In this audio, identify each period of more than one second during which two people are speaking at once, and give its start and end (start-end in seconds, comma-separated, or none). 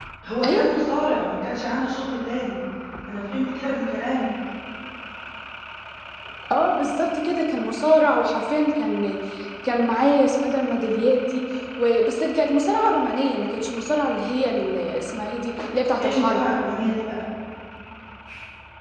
none